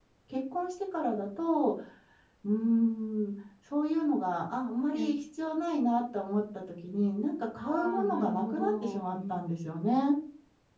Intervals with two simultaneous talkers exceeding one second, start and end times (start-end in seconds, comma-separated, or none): 7.6-9.4